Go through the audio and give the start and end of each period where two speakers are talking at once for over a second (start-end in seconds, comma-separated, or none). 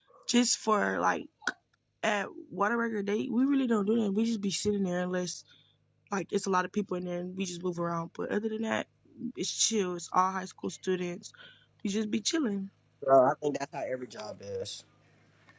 none